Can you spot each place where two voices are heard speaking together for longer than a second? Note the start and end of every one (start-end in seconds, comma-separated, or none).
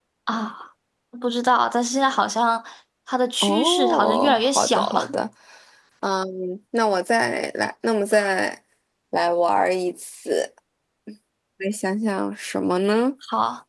3.4-5.1